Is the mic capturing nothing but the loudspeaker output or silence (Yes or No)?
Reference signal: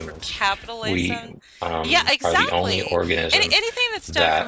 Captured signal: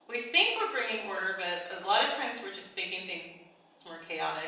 No